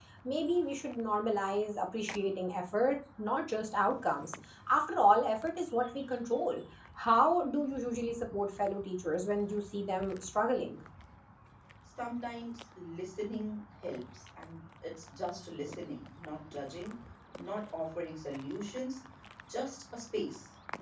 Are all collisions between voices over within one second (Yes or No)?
Yes